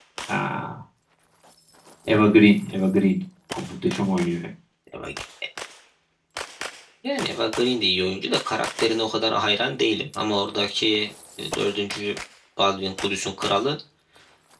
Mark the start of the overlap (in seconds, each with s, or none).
none